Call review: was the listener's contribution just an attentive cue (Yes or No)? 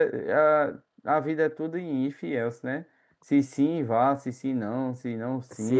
No